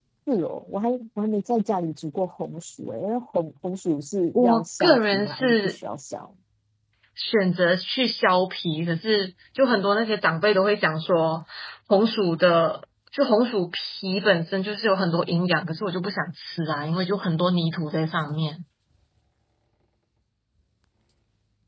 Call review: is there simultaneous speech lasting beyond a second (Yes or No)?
Yes